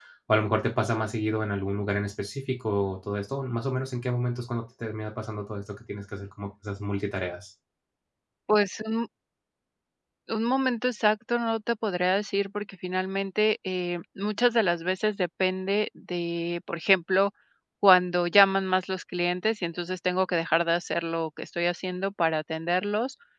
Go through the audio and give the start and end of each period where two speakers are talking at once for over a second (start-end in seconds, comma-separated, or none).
none